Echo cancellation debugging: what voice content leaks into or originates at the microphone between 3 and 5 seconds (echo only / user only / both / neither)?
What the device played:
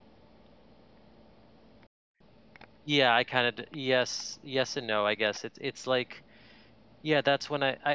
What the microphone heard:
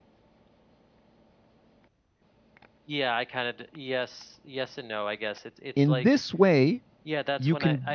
echo only